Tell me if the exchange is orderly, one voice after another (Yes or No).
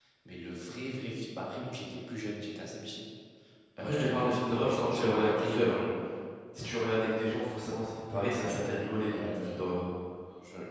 No